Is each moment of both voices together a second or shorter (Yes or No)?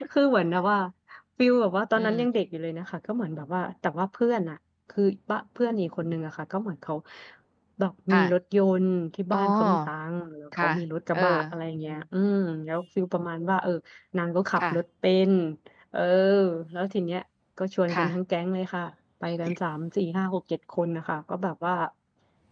Yes